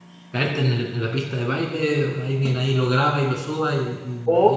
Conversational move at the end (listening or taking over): taking over